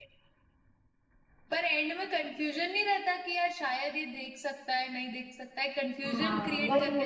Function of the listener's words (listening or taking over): taking over